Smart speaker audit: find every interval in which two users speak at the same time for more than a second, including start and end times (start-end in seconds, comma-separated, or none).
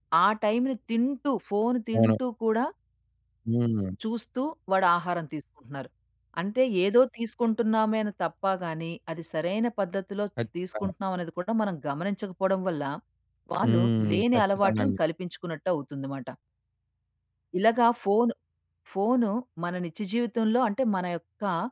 13.6-14.9